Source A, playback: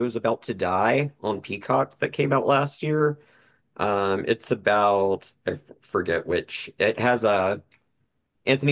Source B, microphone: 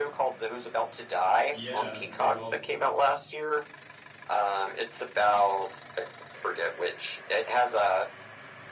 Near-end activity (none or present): present